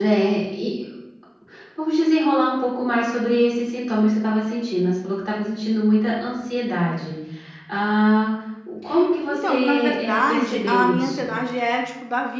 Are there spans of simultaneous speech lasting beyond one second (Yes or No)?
Yes